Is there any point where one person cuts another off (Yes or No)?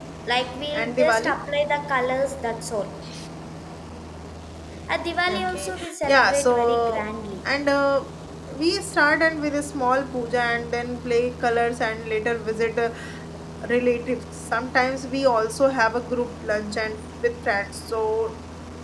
Yes